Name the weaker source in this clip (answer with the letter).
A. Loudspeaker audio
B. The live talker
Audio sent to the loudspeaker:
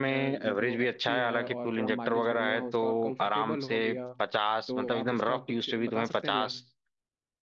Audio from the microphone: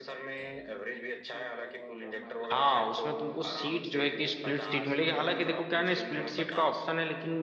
A